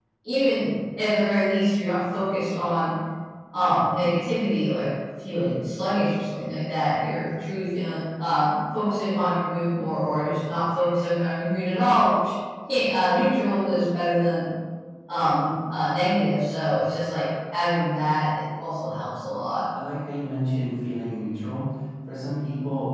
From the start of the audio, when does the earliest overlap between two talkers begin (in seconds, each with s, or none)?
none